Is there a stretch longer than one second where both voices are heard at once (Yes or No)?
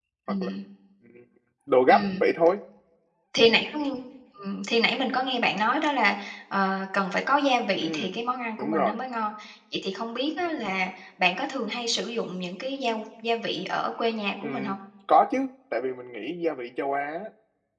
No